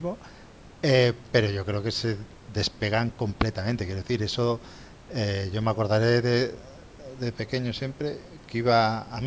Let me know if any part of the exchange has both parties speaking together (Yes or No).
No